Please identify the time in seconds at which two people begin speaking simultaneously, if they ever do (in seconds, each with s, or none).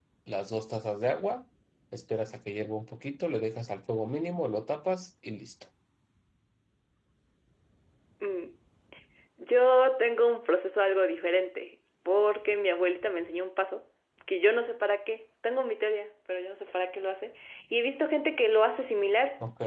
none